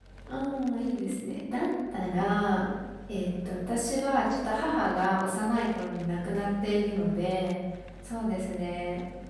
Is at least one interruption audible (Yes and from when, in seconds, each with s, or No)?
No